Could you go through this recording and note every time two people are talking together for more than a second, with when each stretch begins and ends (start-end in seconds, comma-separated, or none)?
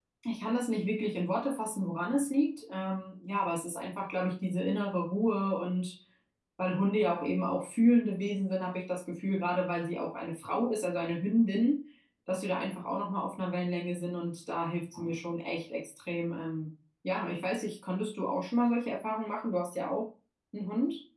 none